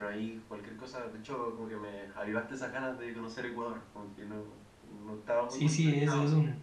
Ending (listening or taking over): taking over